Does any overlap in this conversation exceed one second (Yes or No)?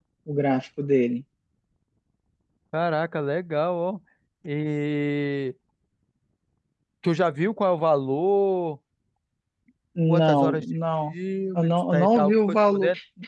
Yes